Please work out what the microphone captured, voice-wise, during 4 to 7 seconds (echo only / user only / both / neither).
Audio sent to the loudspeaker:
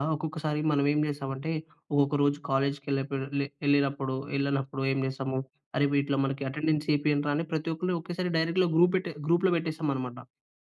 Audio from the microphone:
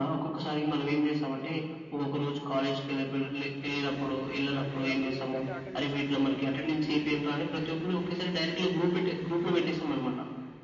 both